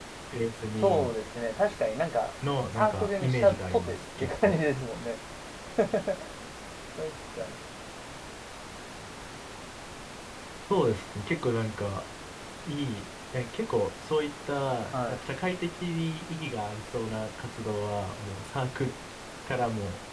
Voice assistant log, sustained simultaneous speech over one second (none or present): present